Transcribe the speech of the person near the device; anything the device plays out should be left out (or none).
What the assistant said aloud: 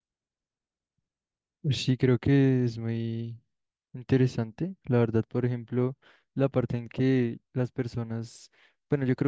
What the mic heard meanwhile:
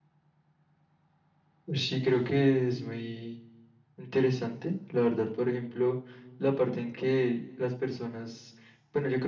none